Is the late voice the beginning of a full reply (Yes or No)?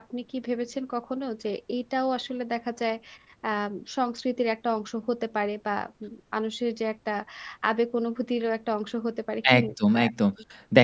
Yes